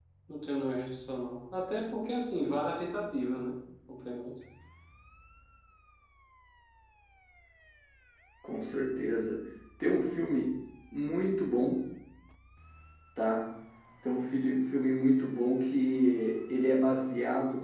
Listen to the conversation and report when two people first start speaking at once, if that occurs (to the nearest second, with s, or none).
none